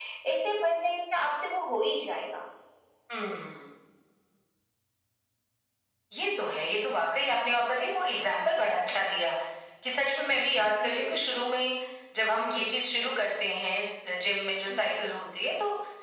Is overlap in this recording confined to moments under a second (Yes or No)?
Yes